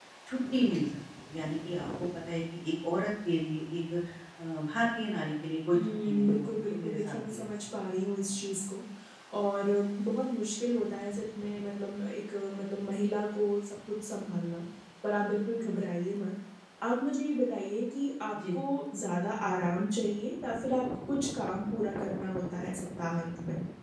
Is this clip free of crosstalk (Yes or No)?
No